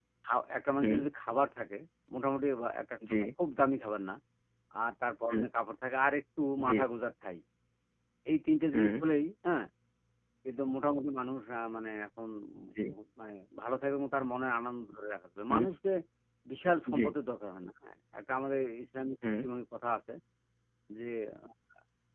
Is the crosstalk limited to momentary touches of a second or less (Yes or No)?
Yes